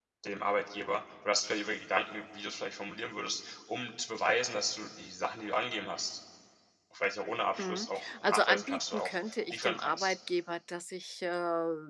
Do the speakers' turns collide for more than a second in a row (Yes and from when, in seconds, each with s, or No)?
Yes, from 7.6 s